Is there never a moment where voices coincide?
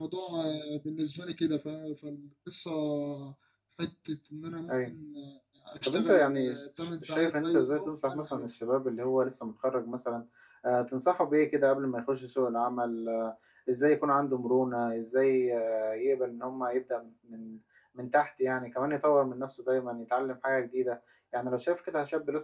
No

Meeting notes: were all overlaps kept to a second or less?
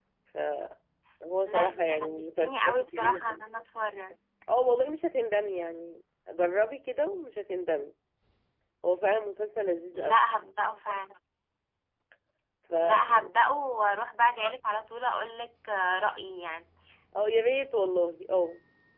No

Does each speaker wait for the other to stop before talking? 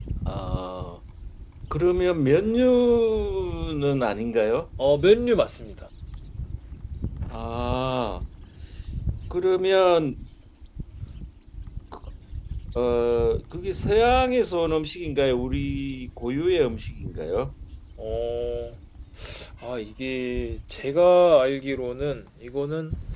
Yes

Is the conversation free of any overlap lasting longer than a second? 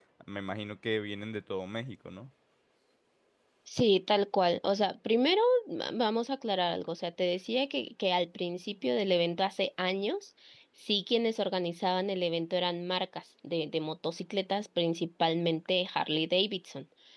Yes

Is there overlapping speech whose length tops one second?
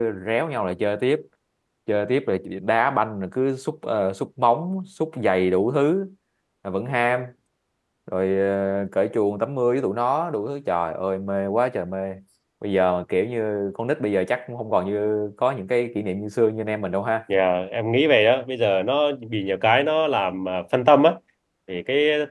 No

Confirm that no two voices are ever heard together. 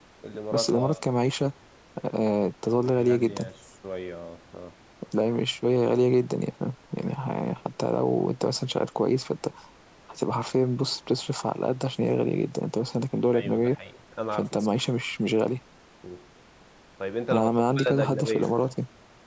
No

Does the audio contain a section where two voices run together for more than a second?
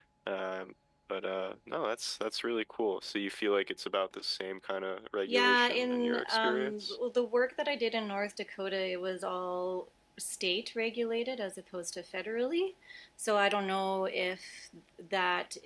Yes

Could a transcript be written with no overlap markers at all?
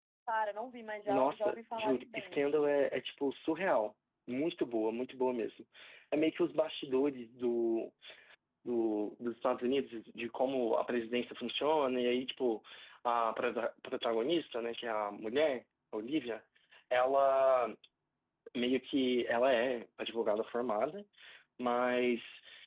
No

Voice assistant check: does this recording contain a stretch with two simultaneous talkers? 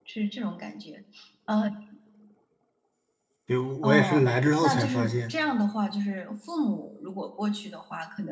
Yes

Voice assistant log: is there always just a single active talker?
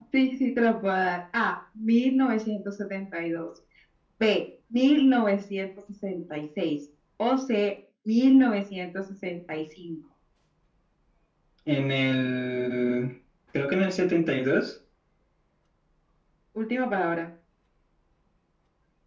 Yes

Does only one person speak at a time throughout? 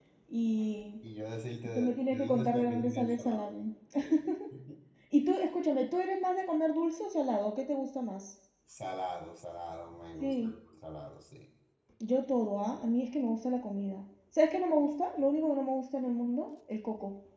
No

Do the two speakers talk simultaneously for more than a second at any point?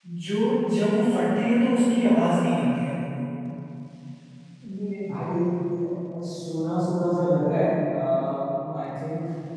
No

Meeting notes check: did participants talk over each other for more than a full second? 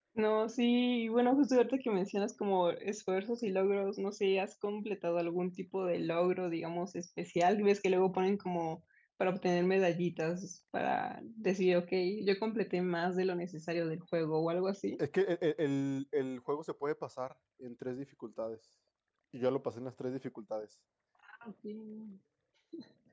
No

